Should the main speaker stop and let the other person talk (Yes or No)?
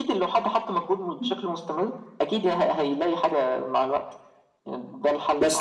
Yes